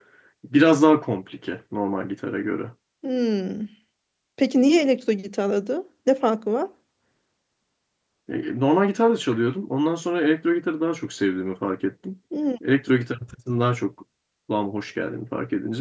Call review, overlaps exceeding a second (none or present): none